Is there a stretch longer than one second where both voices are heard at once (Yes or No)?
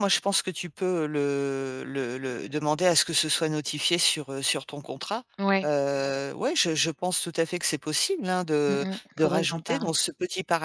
Yes